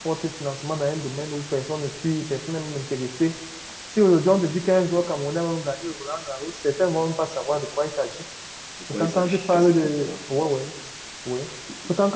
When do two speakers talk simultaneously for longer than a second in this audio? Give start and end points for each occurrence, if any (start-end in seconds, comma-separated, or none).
8.9-10.2